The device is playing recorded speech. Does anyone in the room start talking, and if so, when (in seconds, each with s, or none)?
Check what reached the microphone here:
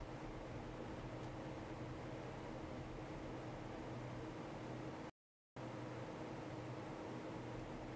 none